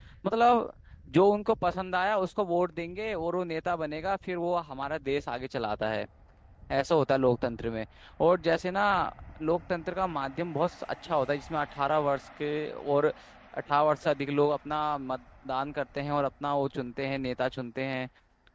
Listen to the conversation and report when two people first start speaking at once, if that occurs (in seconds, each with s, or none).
none